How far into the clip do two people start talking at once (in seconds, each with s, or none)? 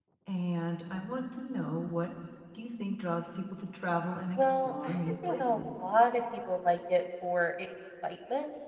4.4 s